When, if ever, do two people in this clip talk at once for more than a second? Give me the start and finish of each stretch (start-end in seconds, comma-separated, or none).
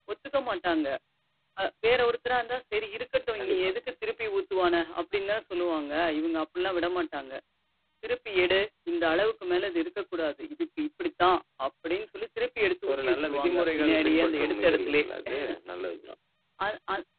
12.9-15.0